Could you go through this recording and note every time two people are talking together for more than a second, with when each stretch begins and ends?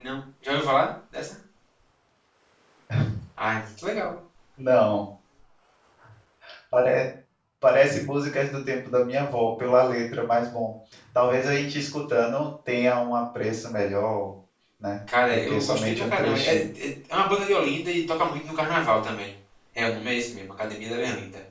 15.3-16.7

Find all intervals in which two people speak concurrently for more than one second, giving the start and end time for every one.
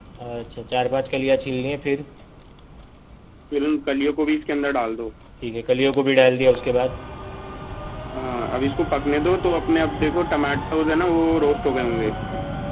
none

